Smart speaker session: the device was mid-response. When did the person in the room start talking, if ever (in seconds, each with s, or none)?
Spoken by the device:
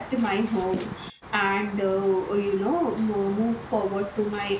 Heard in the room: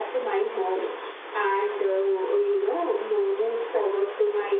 none